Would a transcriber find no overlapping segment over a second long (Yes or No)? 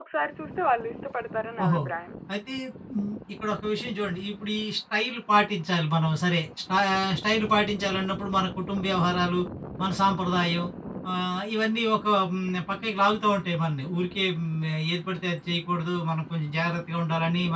Yes